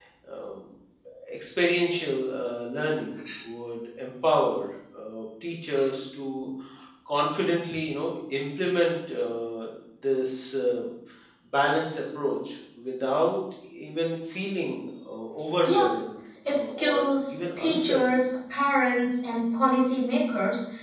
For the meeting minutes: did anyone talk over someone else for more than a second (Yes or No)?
Yes